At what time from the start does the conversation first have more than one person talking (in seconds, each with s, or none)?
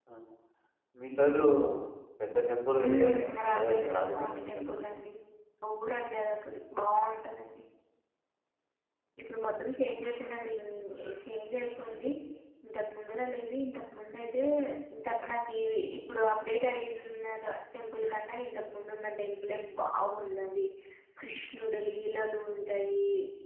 2.8 s